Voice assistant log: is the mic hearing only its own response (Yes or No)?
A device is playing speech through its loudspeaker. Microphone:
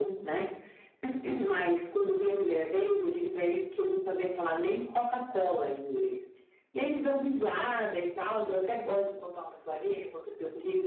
Yes